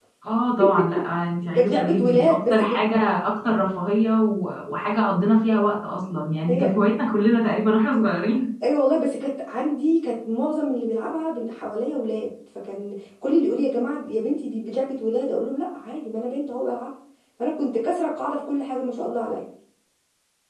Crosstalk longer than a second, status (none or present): present